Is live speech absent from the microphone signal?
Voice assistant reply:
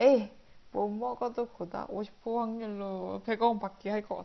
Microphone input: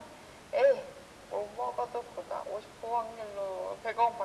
Yes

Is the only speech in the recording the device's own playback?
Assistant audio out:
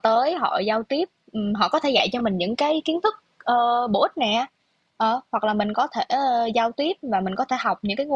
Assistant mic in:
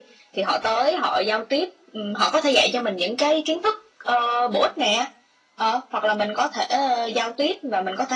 Yes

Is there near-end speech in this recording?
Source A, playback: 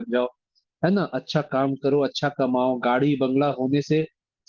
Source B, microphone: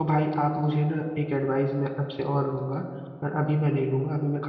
Yes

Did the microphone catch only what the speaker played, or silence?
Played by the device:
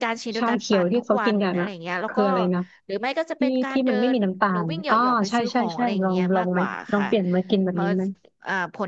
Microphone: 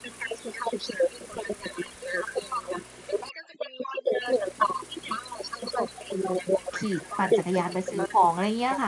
No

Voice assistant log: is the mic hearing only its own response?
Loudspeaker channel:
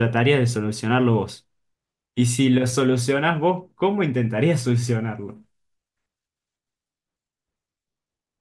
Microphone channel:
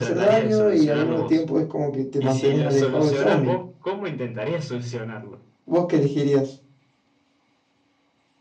No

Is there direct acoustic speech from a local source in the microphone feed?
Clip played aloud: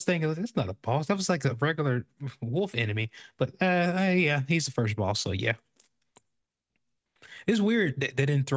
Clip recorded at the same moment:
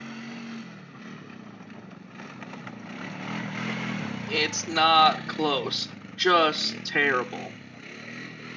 Yes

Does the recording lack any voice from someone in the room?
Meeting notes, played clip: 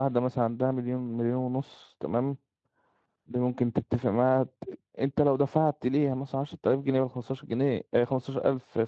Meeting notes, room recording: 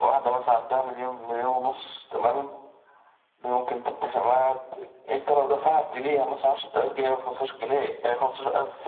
Yes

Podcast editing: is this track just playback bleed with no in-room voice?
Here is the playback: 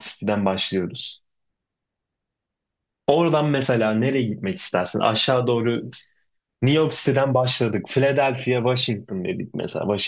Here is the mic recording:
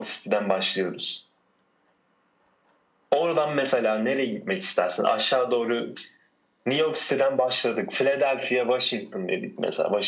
Yes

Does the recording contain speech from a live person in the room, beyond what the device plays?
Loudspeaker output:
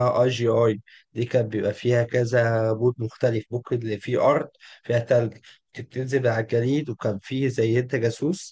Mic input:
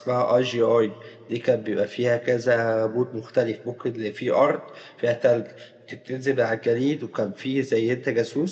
No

